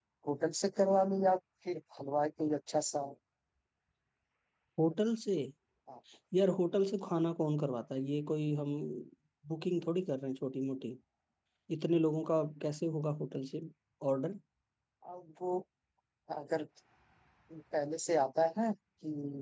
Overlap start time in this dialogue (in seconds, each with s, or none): none